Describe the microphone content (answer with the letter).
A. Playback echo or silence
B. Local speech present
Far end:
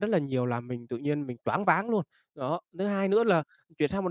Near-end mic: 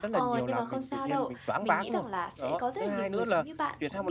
B